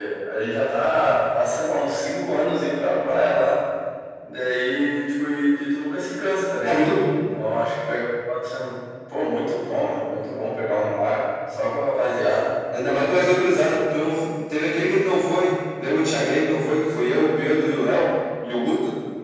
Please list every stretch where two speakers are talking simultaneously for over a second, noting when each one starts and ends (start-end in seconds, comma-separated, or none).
none